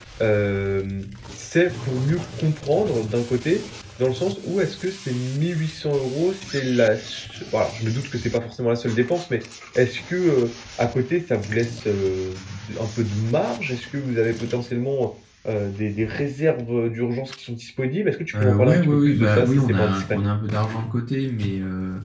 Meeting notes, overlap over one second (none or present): present